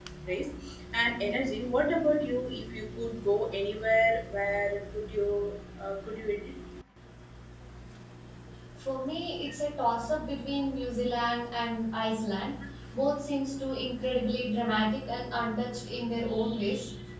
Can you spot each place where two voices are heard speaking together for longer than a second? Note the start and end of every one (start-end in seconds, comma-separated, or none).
none